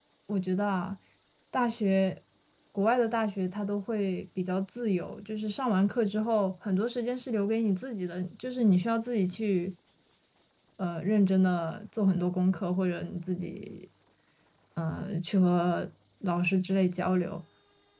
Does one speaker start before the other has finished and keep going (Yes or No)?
No